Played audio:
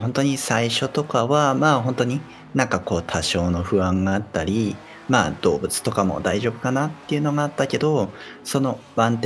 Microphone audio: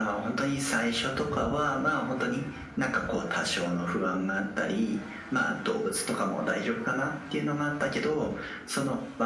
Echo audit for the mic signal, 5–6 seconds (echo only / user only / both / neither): echo only